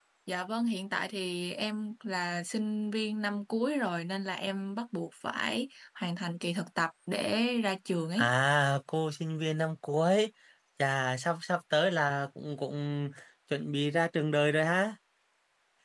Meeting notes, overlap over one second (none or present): none